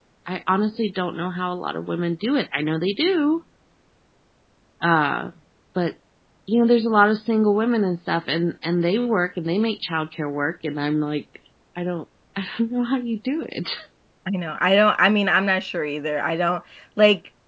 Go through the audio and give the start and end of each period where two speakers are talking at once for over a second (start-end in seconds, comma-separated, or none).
none